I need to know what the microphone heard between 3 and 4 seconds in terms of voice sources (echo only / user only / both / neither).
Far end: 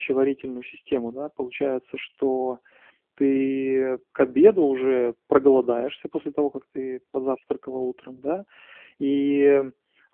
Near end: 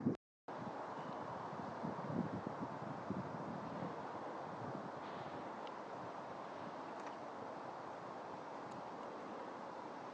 neither